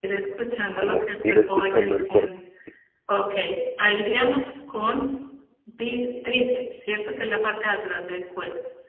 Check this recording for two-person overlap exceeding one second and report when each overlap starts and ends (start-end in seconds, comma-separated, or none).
0.8-2.3